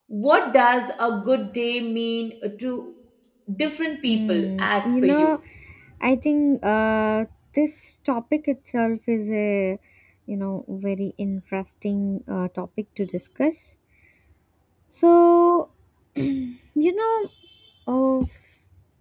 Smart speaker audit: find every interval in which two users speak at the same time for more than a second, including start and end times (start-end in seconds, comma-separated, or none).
4.1-5.3